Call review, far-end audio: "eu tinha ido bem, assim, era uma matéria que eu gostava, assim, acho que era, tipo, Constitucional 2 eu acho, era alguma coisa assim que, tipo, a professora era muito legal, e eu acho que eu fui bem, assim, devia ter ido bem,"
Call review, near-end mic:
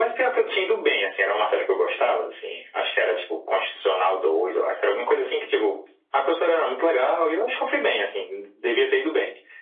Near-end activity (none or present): none